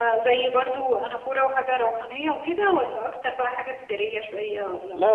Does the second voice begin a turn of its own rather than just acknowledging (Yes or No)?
Yes